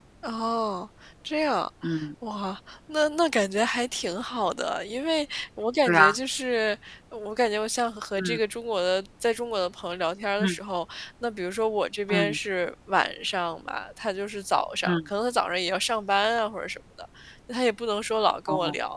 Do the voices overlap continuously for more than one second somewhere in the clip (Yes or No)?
No